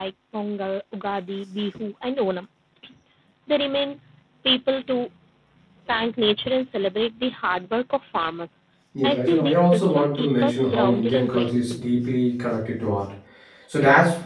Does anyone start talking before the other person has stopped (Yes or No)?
Yes